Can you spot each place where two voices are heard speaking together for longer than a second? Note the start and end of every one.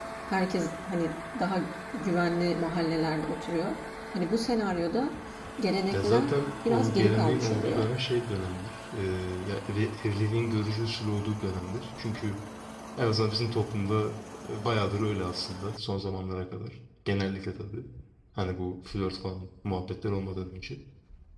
5.9-7.9

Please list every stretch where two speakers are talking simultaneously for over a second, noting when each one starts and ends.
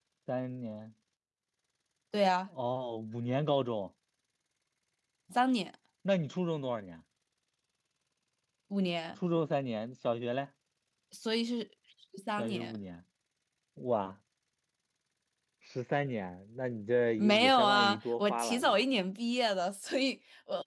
17.2-18.8

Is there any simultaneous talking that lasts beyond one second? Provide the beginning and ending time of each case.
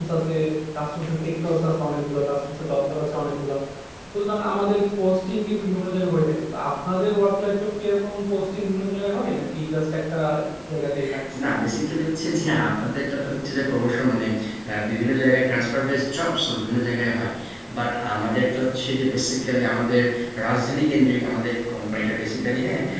none

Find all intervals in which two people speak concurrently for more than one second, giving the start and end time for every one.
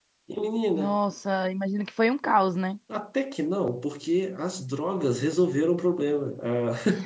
none

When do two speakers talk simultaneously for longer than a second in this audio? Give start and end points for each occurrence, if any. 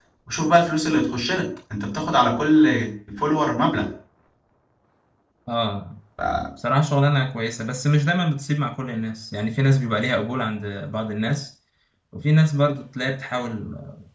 none

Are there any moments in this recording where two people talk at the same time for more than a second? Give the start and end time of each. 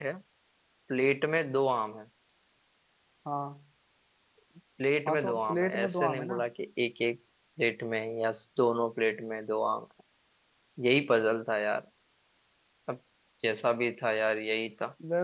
5.1-6.4

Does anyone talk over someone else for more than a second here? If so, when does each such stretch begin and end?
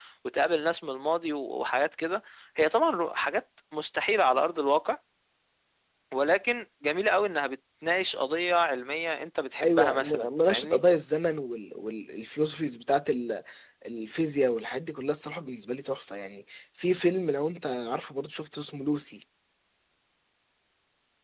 9.6-10.8

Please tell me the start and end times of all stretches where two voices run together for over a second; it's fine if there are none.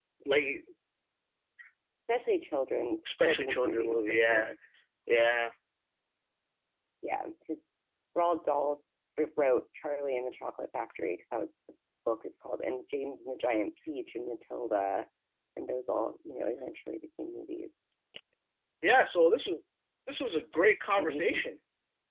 3.0-4.5

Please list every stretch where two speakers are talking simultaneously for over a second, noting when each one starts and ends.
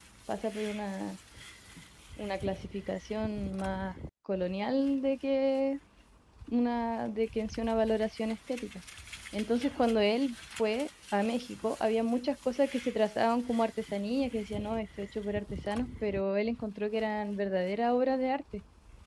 none

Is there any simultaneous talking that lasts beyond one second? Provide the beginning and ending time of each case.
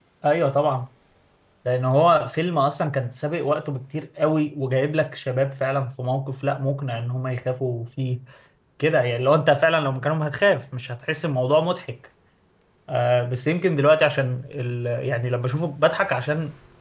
none

